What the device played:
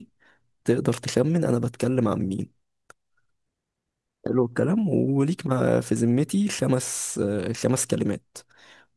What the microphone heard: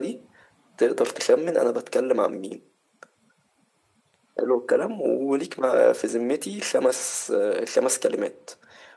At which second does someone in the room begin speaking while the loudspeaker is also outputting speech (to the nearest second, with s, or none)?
none